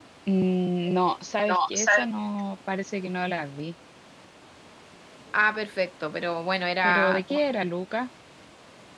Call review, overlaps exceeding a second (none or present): none